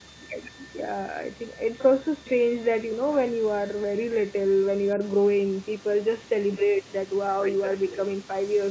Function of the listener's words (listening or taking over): listening